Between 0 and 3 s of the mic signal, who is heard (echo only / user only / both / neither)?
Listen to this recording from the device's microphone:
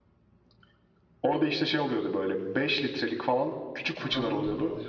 echo only